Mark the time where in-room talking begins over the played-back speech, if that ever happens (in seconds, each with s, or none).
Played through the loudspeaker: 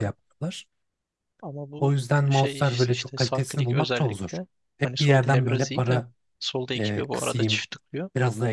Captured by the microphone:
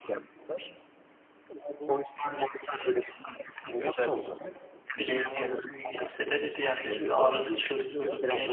5.0 s